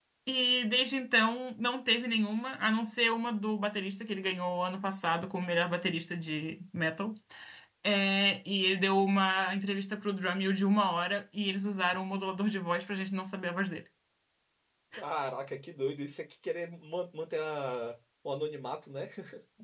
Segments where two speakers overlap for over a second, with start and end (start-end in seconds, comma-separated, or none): none